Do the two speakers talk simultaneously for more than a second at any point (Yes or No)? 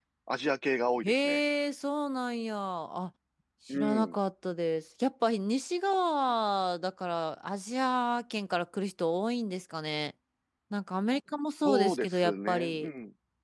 Yes